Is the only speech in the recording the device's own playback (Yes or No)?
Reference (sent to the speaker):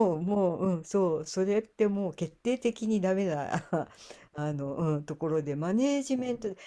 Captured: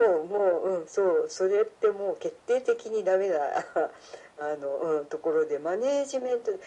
Yes